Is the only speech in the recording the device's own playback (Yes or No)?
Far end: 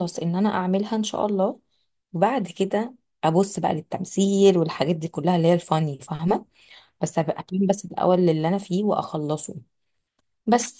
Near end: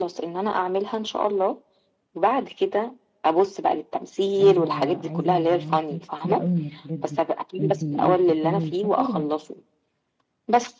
No